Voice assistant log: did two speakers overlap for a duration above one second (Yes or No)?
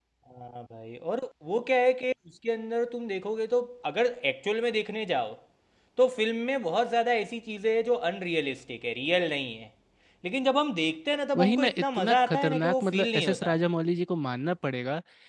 Yes